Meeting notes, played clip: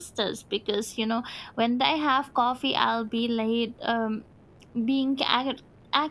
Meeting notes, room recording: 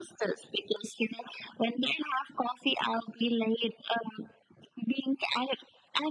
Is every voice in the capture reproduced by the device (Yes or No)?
Yes